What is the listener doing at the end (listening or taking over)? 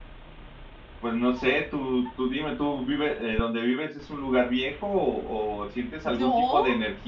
listening